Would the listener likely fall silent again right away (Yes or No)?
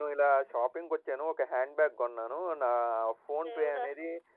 Yes